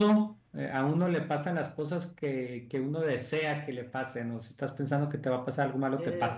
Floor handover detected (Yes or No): Yes